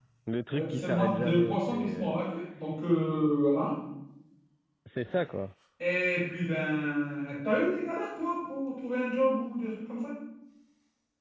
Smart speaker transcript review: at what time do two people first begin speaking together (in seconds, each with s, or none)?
0.5 s